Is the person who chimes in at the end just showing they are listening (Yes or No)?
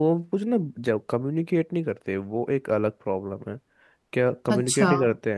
Yes